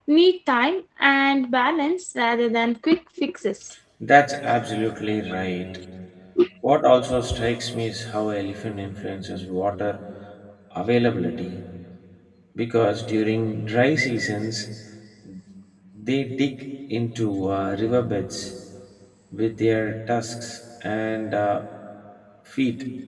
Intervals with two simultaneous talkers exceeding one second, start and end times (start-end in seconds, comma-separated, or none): none